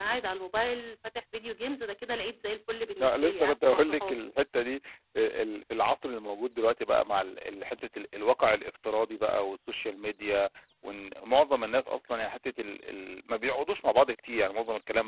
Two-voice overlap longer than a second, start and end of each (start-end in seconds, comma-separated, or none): 3.0-4.3